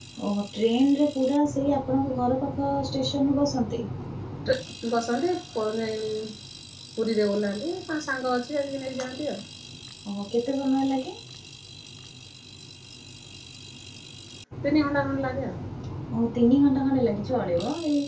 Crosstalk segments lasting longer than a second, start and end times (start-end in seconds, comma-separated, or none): none